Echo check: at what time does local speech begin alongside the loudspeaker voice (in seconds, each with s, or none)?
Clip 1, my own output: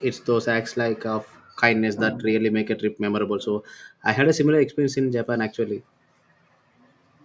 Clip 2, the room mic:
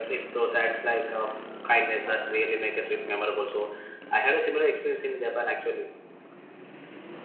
none